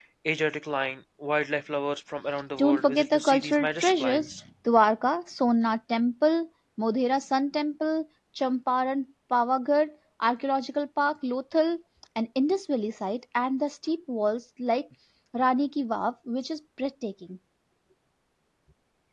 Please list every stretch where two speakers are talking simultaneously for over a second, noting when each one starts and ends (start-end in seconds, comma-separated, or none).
2.6-4.3